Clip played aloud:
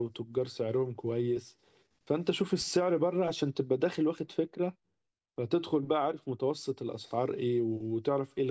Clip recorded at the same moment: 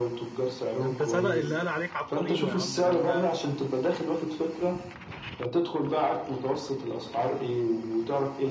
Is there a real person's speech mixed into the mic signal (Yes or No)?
Yes